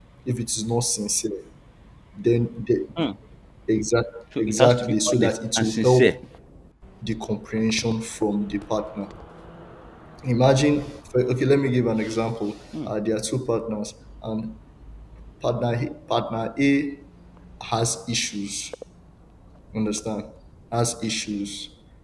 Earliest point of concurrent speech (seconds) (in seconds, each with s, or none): 4.4 s